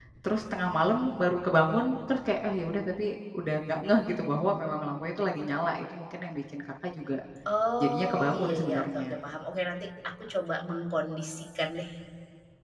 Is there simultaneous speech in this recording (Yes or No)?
Yes